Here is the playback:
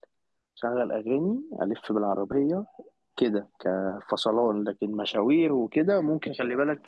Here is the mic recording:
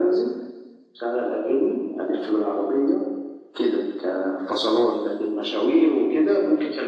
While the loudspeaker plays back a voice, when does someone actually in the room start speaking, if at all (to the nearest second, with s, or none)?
none